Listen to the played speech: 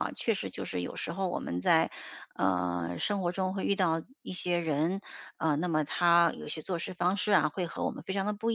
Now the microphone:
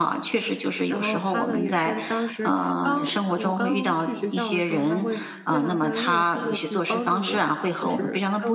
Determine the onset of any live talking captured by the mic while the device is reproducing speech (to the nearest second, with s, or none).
1 s